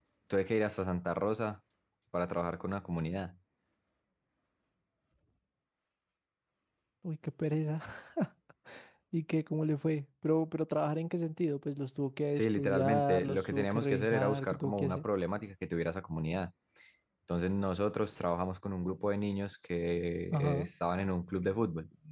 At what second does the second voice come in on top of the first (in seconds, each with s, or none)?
12.4 s